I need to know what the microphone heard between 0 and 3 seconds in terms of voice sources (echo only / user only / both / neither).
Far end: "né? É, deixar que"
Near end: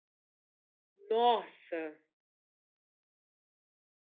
user only